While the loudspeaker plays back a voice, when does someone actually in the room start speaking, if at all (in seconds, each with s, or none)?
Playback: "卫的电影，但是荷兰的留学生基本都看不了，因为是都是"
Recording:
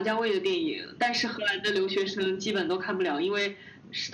none